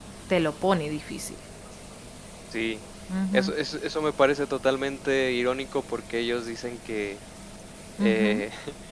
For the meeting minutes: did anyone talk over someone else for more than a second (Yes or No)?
No